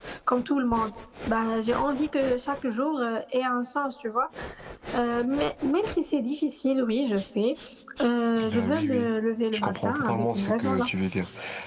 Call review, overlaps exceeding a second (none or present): present